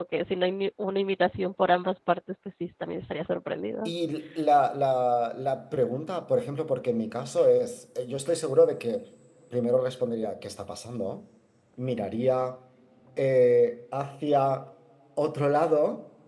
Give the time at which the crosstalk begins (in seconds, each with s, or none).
none